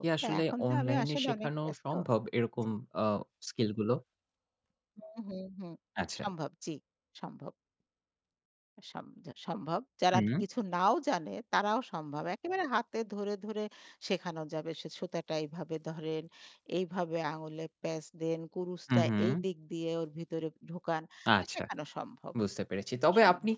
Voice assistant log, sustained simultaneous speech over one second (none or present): present